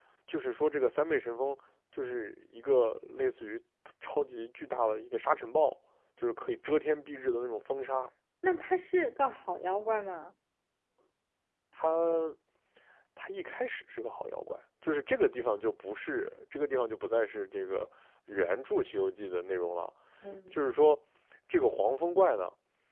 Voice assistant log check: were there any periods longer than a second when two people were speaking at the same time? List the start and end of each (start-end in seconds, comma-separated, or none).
none